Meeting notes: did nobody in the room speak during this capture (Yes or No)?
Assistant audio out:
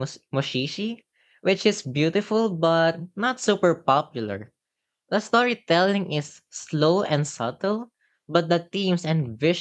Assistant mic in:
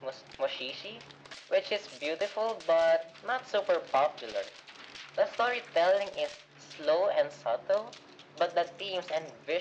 Yes